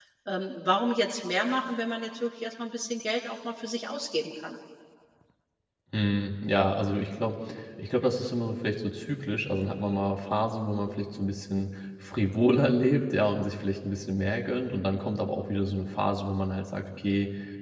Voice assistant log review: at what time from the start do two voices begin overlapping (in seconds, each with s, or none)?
none